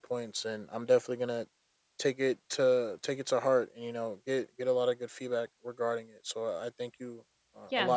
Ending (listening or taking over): taking over